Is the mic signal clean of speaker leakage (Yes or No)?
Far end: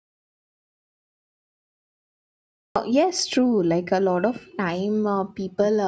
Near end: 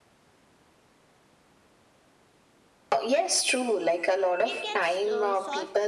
No